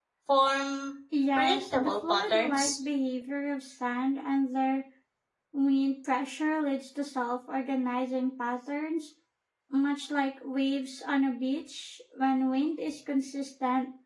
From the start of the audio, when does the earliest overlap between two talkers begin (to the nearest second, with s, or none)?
1 s